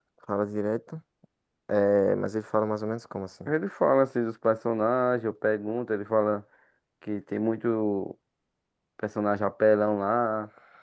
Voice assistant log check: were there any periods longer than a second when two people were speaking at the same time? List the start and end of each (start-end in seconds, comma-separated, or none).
none